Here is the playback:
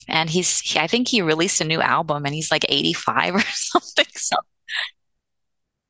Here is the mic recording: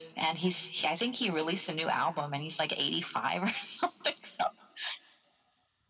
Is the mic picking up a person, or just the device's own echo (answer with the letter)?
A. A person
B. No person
B